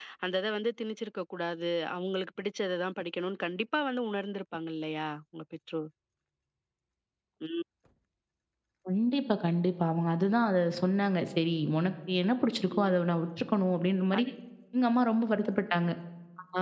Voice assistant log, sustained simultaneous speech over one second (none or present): none